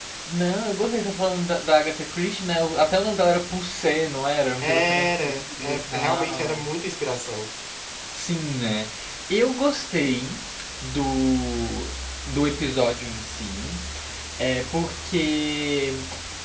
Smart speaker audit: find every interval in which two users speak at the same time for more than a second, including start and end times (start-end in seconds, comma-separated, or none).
4.6-6.7